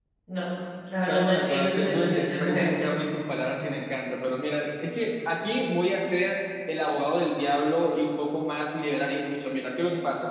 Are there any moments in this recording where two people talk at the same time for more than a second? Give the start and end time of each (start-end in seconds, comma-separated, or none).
1.1-2.8